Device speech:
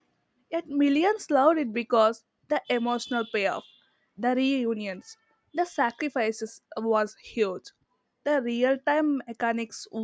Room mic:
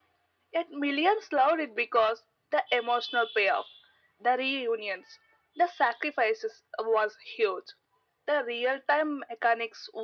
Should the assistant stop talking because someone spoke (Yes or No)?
No